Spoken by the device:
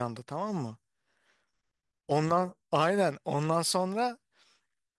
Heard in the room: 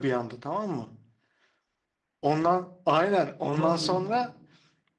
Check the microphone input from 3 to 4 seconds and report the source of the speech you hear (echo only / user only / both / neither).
both